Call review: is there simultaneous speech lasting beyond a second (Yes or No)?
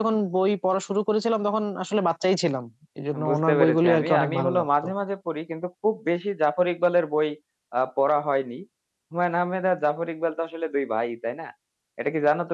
Yes